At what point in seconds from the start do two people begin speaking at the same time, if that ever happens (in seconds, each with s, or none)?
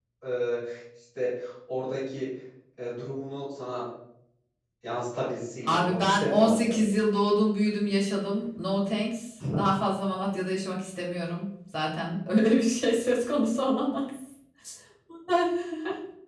5.6 s